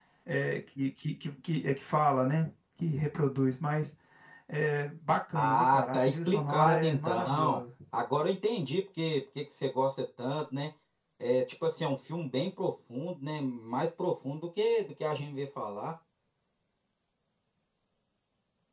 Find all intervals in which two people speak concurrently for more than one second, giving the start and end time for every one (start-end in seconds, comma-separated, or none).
5.3-7.6